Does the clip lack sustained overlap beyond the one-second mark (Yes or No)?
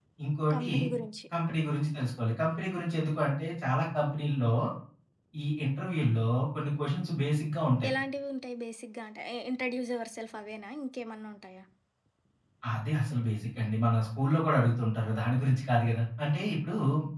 Yes